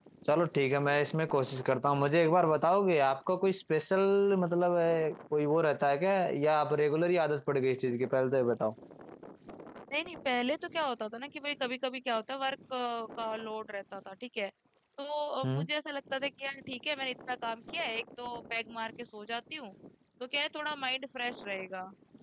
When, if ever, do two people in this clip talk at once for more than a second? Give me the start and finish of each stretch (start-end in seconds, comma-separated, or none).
none